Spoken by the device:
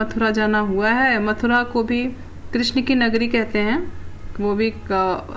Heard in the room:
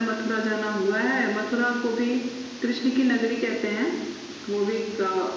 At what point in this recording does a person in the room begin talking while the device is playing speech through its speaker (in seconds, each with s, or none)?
none